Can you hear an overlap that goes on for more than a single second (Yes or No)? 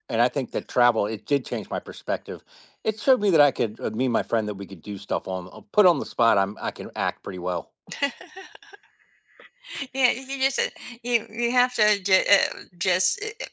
No